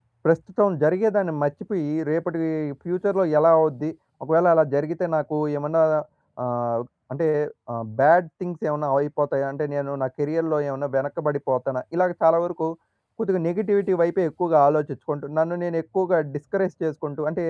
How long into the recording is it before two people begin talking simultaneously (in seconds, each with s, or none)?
none